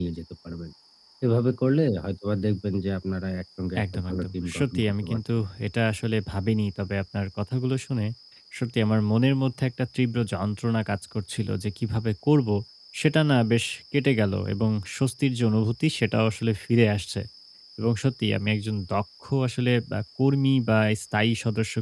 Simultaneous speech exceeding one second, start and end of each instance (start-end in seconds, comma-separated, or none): 3.8-5.2